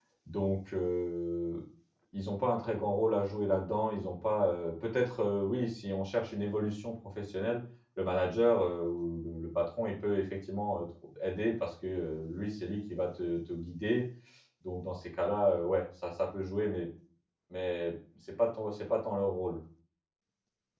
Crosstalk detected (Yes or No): No